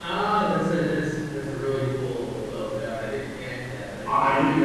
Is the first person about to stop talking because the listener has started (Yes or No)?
Yes